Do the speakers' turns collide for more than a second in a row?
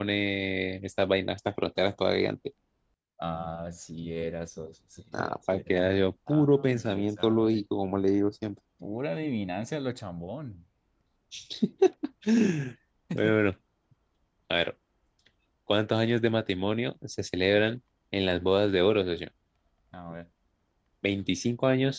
Yes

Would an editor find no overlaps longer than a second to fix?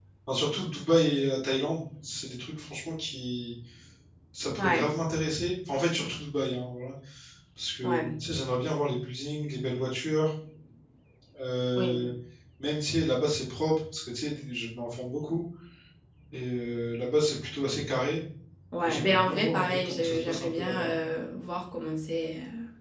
No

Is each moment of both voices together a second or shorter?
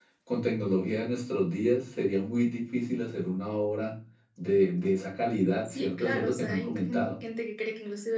No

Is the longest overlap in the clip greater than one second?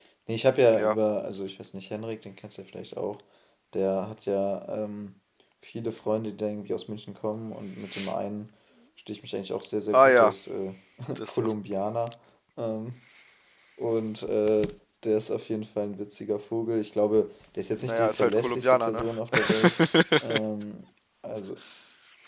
Yes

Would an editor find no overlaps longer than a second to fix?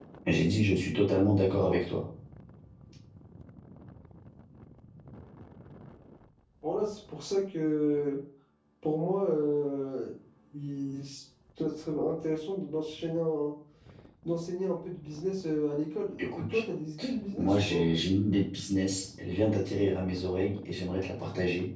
Yes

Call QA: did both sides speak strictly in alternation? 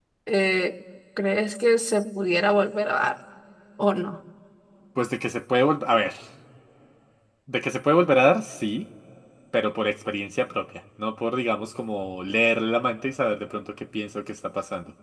Yes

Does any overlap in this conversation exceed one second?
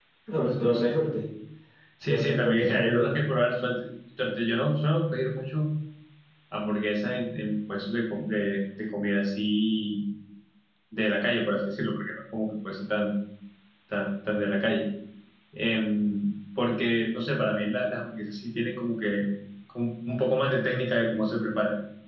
Yes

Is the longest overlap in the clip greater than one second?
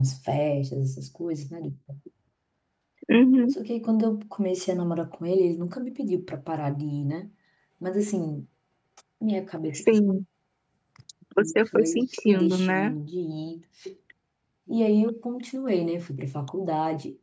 Yes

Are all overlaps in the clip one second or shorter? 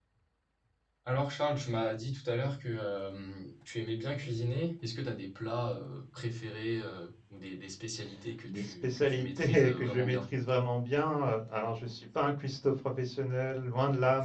No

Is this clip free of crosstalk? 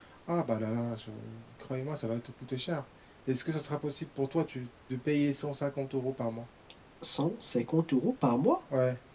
Yes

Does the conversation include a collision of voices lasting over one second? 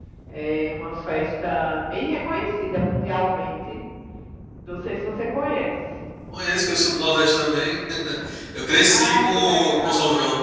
Yes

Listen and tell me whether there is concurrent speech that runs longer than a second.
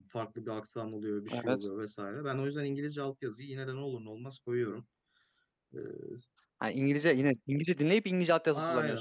No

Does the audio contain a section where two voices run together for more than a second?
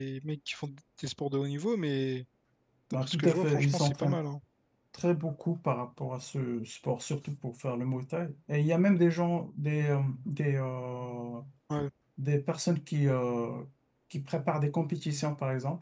Yes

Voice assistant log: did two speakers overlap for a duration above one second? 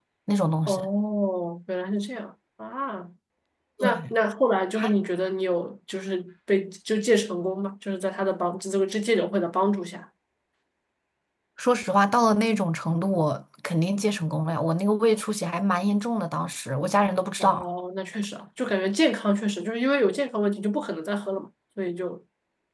No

